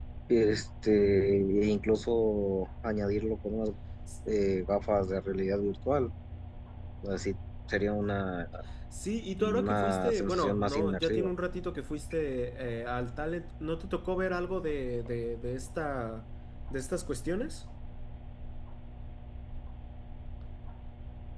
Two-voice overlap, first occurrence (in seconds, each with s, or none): 9.4 s